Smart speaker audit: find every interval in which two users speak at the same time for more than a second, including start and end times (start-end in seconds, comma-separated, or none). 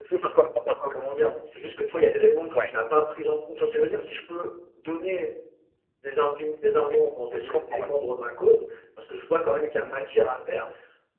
none